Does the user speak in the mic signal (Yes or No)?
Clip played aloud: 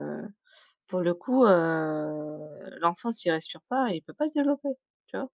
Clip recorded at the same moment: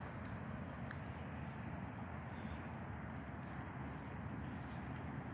No